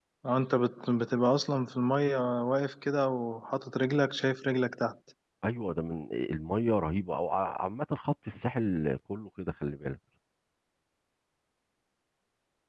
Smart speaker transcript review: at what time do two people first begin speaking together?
none

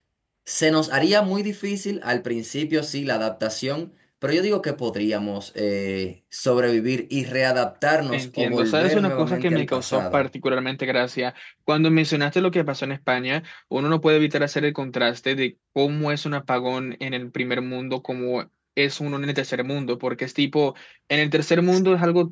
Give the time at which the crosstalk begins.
8.1 s

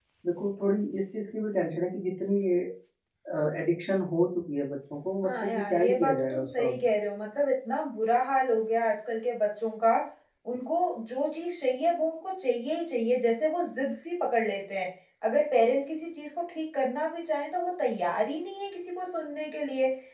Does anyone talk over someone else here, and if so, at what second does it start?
5.2 s

